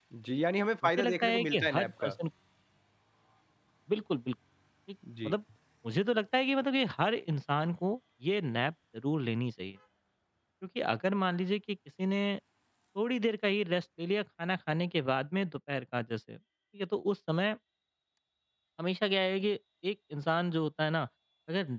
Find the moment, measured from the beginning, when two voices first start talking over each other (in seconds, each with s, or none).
0.8 s